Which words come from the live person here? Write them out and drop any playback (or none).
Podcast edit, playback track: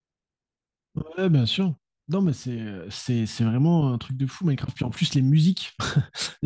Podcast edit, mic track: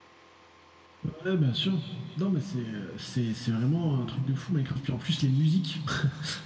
none